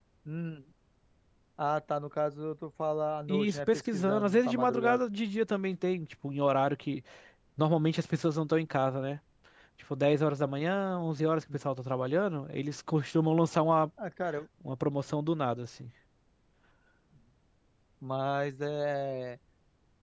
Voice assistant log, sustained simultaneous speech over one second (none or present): present